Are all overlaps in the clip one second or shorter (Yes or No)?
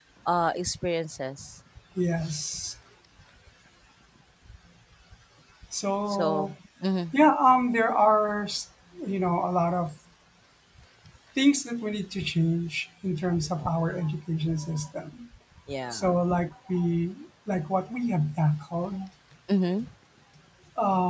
Yes